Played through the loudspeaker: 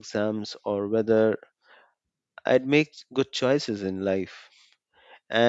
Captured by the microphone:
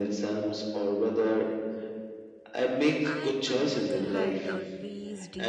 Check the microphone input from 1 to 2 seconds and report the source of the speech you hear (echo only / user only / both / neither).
echo only